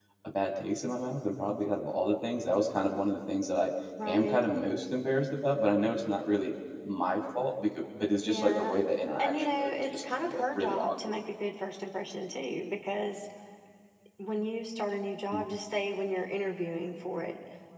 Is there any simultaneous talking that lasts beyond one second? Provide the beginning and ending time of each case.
9.2-11.2

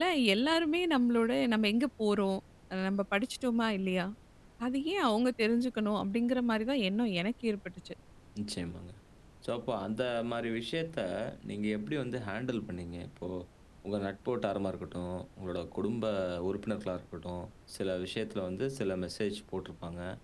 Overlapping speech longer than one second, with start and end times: none

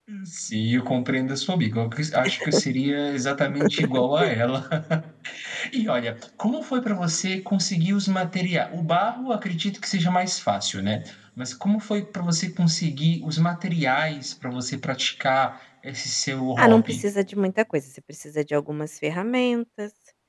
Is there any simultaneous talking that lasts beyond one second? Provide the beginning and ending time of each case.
none

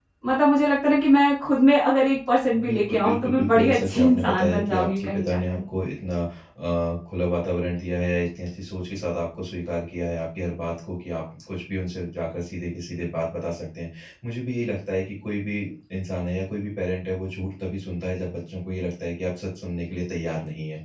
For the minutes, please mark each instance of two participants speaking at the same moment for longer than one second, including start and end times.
2.5-5.6

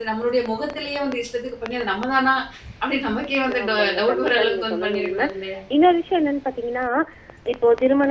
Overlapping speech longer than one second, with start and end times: 3.6-5.2

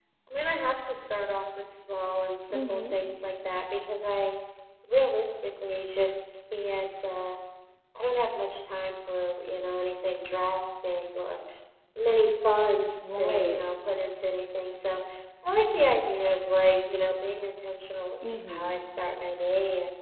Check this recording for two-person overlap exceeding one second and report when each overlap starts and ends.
none

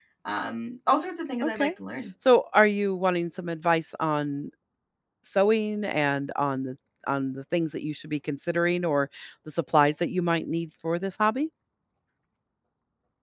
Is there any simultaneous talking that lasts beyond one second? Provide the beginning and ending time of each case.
none

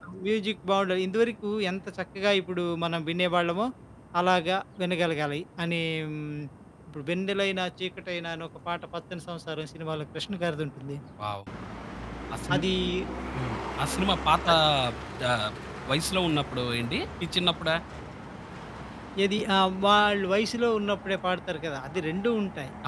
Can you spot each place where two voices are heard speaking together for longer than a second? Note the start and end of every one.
none

